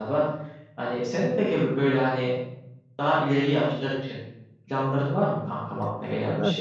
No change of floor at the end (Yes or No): No